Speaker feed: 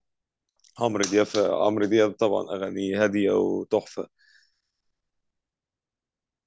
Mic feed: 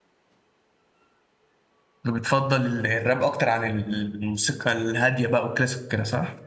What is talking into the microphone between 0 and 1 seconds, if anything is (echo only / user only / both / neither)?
neither